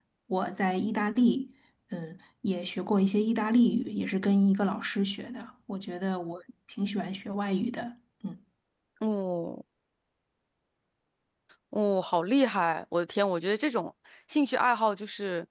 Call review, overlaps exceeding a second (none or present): none